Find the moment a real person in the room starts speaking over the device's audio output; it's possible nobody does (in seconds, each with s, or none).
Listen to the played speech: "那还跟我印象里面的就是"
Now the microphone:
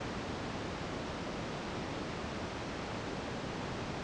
none